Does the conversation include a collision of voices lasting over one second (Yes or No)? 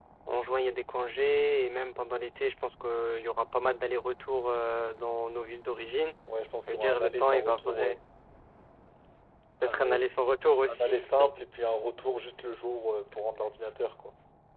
Yes